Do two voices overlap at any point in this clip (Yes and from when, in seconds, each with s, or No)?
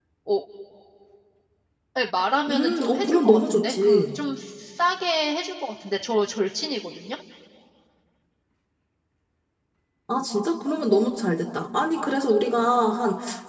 Yes, from 2.5 s